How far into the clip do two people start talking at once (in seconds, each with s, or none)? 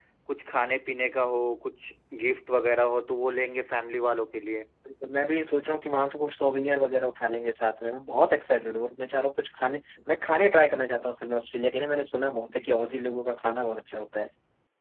none